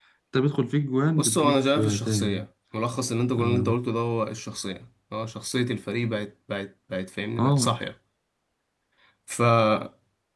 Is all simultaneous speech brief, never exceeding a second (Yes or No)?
No